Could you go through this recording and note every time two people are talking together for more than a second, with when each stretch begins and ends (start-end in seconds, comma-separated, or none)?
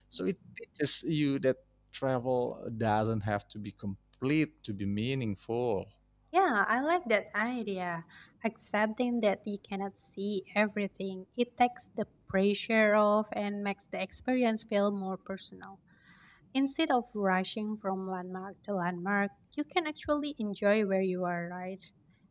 none